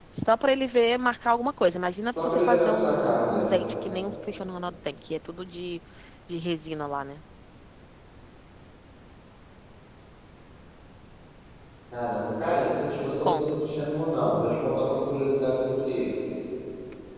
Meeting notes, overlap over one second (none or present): present